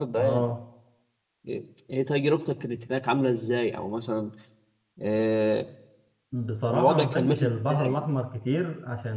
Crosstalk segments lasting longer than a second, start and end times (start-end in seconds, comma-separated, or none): 6.7-8.1